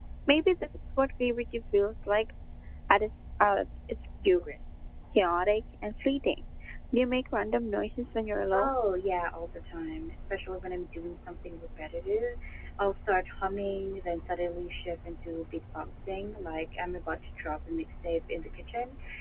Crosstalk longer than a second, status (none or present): none